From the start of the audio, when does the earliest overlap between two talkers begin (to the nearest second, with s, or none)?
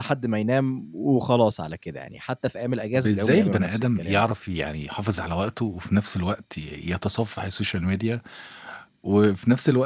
3 s